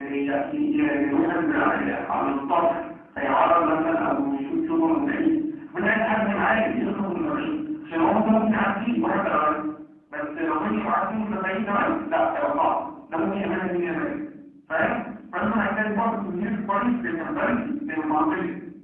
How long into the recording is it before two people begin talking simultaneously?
none

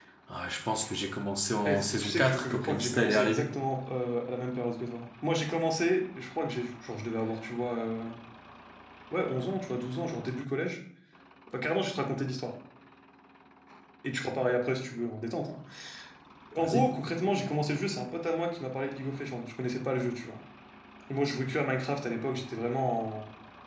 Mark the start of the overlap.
1.6 s

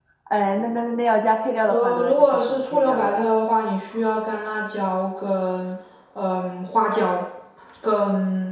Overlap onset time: 1.7 s

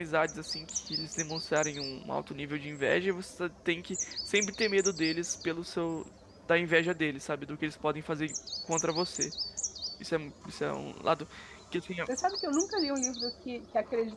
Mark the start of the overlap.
none

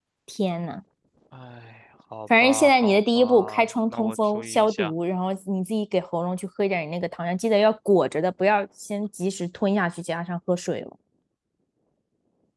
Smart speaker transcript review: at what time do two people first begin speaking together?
2.3 s

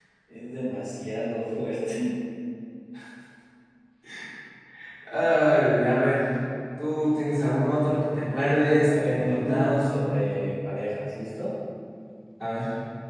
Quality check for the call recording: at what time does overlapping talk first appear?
8.8 s

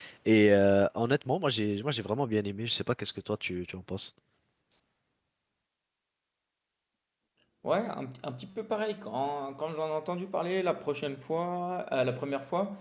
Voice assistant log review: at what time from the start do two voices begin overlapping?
none

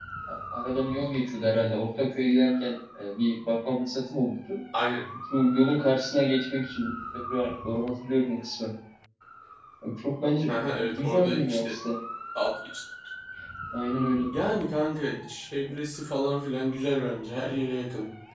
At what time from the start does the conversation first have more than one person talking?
10.5 s

